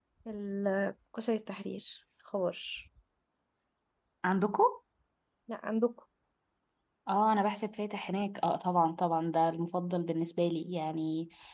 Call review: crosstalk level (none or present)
none